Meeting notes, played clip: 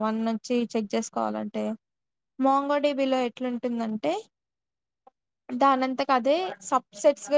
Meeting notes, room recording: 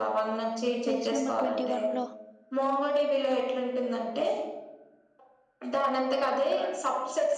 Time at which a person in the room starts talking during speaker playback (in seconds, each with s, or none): 0.8 s